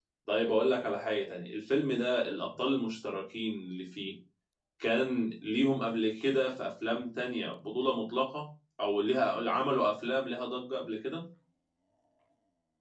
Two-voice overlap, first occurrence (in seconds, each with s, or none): none